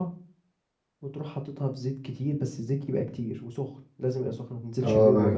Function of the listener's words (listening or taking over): taking over